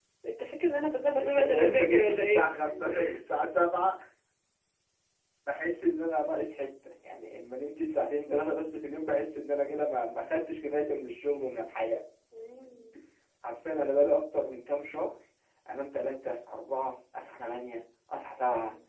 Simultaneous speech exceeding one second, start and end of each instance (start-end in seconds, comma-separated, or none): 1.2-2.5